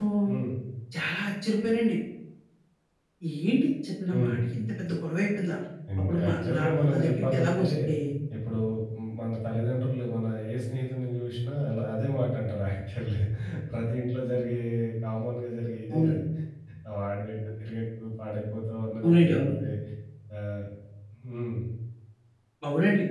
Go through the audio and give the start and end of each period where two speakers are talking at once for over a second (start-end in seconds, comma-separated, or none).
6.0-7.6